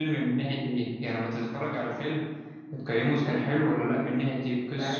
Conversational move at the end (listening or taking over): taking over